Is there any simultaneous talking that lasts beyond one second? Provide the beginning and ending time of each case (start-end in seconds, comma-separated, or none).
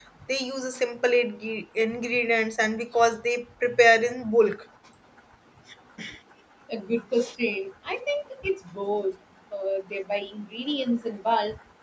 none